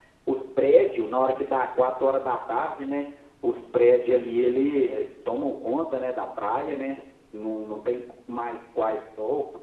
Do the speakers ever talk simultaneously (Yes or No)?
No